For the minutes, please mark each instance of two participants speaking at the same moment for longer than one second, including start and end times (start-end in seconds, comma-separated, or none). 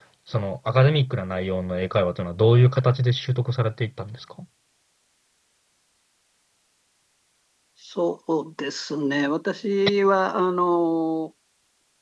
none